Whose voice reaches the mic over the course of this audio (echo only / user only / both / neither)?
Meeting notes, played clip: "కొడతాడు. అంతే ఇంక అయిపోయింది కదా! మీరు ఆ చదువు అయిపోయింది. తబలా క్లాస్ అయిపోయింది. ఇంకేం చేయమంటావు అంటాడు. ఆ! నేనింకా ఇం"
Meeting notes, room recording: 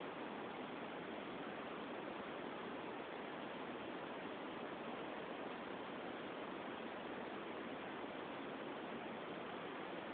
neither